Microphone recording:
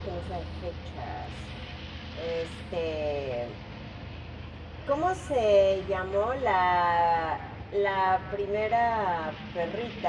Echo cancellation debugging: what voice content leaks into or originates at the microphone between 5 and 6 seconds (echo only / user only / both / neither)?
user only